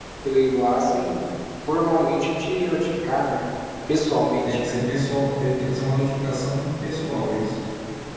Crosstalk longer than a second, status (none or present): none